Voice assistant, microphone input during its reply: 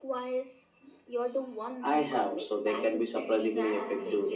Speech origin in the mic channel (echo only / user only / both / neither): both